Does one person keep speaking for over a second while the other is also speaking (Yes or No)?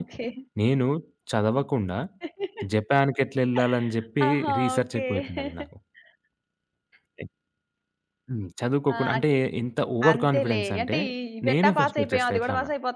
Yes